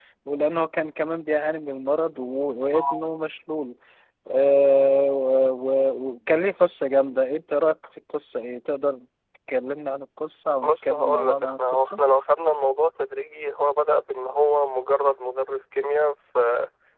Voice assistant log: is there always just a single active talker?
No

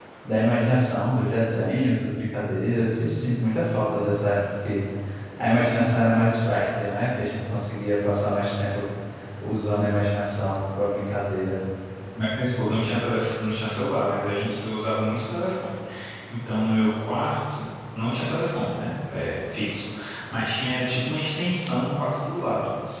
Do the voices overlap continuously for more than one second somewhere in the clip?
No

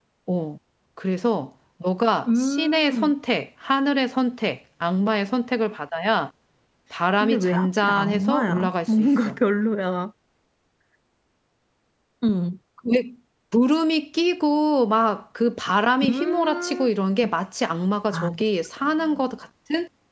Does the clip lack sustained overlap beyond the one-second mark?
No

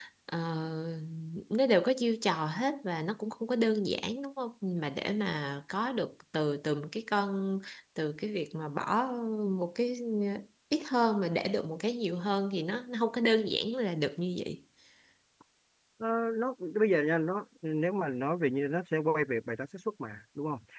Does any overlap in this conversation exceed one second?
No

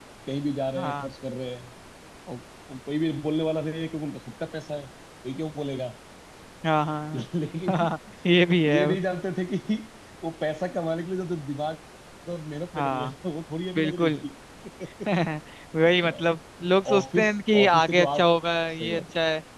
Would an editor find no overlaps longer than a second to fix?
No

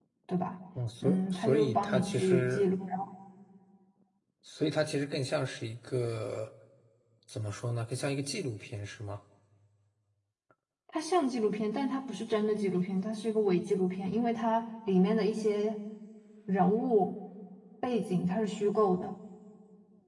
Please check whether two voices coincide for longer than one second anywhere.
Yes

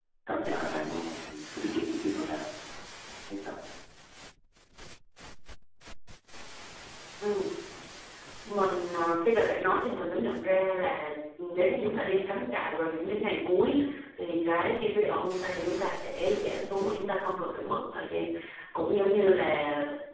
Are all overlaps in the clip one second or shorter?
Yes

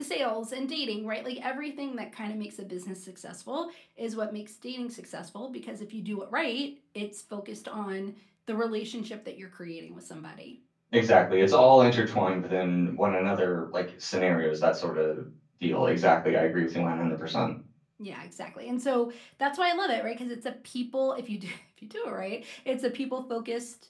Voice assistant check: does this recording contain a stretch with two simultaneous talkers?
No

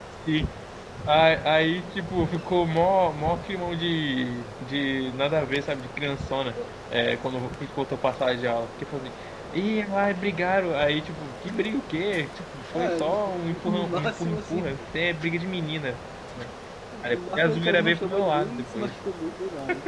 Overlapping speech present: Yes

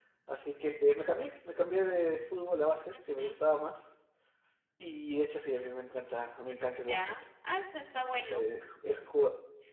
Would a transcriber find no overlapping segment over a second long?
Yes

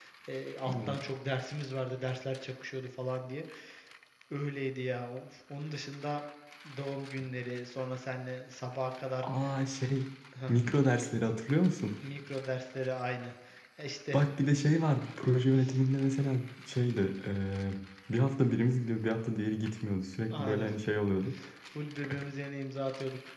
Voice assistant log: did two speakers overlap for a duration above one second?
No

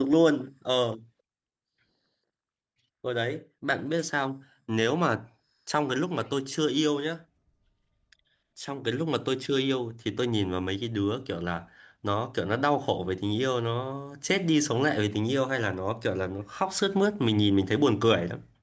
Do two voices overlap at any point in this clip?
No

